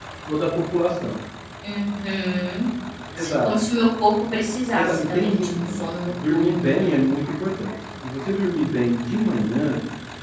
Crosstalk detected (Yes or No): Yes